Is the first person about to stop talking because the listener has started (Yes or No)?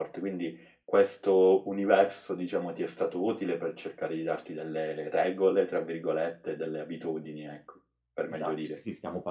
Yes